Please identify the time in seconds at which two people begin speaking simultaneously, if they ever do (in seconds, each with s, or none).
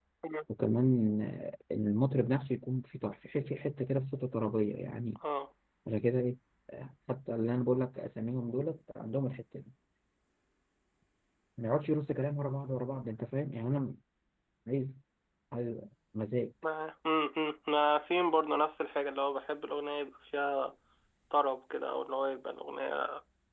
none